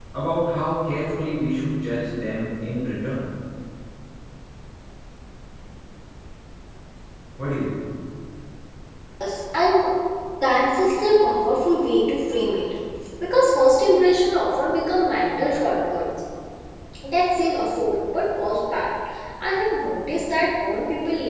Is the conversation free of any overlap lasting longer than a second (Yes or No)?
Yes